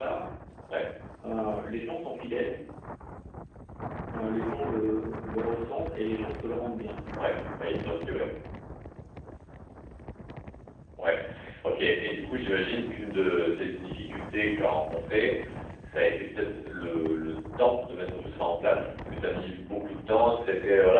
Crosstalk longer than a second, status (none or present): none